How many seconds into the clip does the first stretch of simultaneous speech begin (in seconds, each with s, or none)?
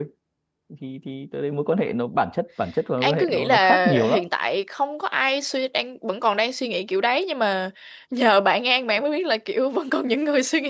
3.0 s